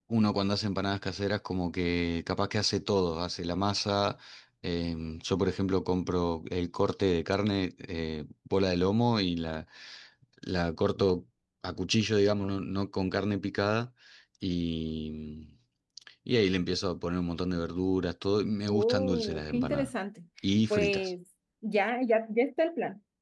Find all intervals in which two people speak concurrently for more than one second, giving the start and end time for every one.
18.7-19.9

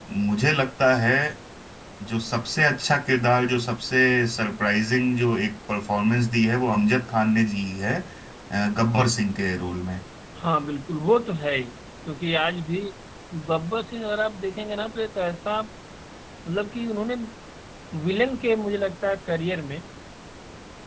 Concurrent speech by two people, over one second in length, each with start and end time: none

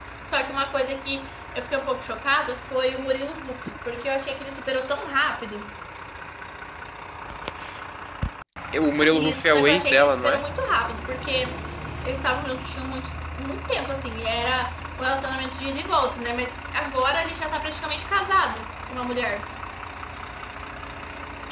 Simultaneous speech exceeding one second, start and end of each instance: 9.1-10.4

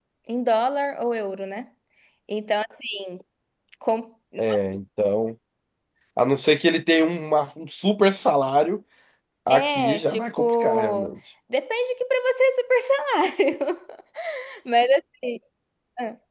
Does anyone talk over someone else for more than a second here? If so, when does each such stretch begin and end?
9.5-11.1

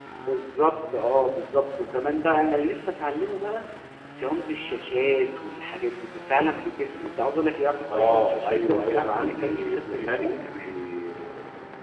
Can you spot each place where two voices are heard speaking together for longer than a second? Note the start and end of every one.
7.9-10.7

